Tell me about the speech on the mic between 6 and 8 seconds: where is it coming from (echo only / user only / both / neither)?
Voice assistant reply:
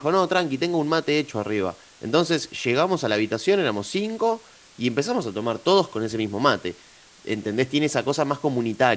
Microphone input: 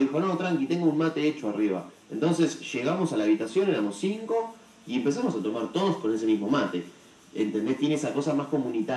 echo only